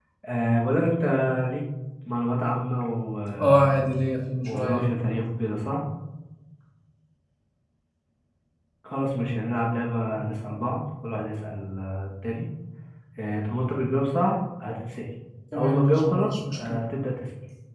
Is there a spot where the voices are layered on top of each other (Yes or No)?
Yes